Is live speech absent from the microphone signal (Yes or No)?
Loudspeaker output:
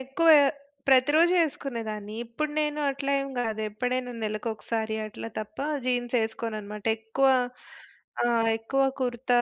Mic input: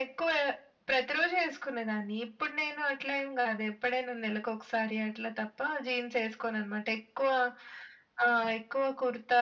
Yes